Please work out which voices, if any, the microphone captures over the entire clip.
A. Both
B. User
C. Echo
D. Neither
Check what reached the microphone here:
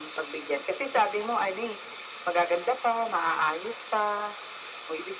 C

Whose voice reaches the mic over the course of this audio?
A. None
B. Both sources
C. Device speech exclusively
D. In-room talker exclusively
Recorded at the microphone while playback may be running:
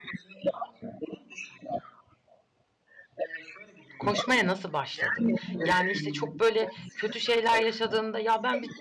B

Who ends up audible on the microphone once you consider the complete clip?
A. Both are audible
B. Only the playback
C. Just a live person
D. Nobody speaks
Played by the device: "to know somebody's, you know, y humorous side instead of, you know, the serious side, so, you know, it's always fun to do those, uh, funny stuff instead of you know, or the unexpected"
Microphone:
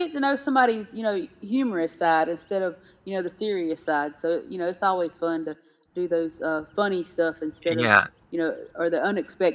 A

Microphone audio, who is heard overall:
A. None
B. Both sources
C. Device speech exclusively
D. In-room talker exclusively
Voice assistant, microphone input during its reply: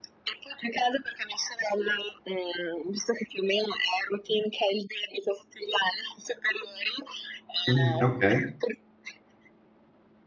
B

